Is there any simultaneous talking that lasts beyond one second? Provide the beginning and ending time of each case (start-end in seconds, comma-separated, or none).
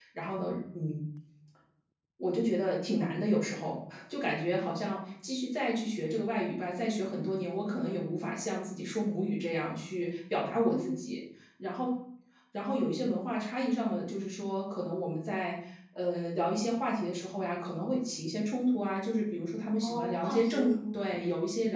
19.8-21.1